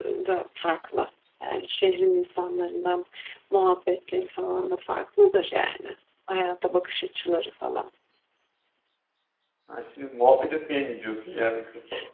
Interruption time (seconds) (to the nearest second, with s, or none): none